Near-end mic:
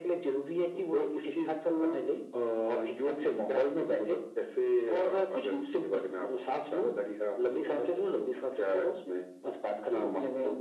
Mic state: echo only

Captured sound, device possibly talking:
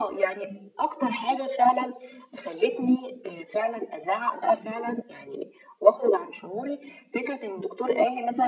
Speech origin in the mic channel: echo only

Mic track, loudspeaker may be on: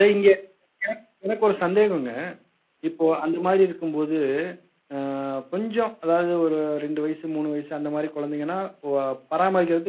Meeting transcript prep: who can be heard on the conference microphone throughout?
user only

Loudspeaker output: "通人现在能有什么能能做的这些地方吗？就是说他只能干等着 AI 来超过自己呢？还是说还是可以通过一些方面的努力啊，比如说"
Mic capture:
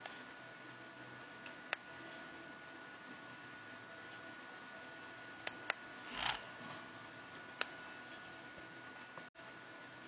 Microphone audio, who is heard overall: neither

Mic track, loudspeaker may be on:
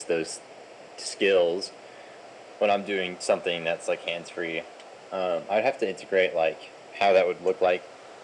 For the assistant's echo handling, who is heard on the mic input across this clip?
echo only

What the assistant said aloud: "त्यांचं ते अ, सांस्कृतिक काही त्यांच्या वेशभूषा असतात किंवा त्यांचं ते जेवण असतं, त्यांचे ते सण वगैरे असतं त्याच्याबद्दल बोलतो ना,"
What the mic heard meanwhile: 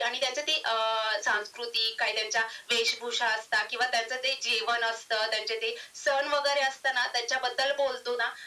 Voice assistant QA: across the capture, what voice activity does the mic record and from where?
echo only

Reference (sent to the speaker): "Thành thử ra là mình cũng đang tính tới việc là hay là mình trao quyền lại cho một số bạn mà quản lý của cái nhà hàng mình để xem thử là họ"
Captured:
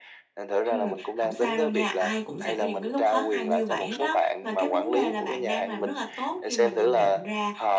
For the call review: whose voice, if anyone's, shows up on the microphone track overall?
both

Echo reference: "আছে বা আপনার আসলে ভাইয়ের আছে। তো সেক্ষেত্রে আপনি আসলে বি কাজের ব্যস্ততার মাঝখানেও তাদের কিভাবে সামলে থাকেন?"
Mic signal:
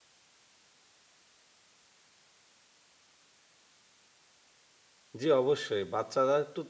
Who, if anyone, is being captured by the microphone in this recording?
user only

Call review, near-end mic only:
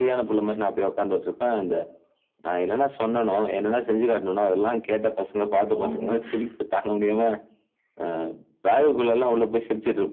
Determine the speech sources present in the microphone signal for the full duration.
both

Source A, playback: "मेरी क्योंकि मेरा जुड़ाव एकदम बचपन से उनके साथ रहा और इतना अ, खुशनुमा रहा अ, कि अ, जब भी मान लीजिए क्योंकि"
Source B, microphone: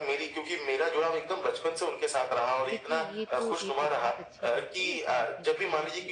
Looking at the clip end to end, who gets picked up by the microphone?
both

